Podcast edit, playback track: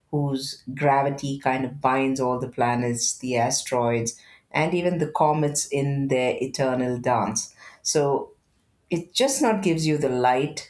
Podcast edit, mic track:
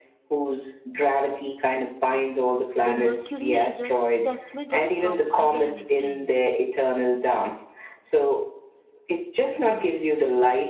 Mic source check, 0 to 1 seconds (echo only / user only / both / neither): echo only